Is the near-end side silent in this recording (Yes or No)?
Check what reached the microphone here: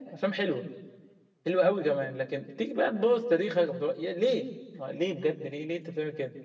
Yes